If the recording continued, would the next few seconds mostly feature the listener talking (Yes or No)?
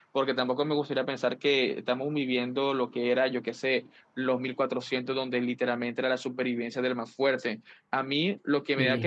No